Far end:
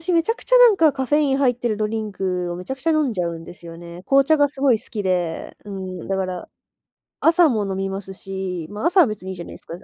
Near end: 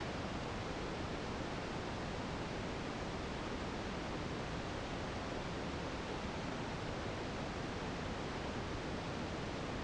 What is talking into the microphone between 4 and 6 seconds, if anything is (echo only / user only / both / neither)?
neither